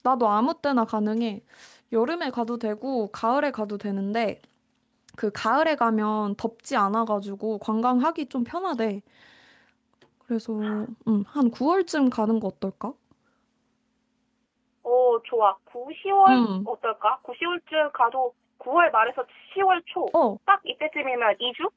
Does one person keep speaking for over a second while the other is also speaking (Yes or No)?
No